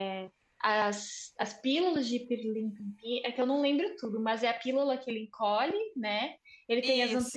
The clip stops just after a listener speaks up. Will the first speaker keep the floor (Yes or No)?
Yes